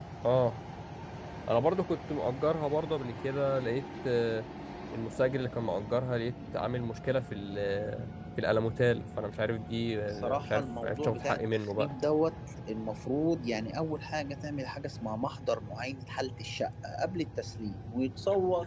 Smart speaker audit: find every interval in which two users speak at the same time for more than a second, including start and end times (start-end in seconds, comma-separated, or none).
10.1-11.9